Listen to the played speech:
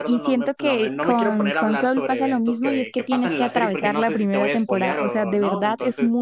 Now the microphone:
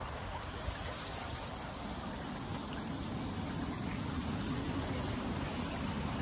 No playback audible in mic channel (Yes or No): Yes